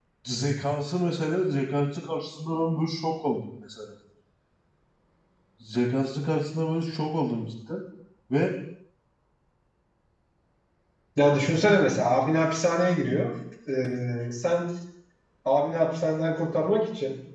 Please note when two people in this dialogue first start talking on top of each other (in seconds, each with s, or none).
none